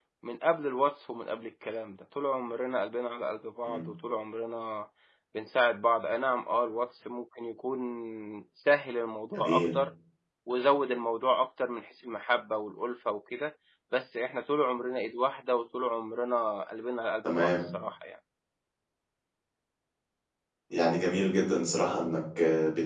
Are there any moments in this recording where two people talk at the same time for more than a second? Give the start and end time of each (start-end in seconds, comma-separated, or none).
none